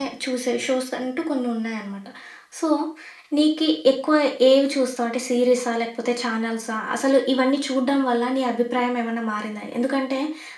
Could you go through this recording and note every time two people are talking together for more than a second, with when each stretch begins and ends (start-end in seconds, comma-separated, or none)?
none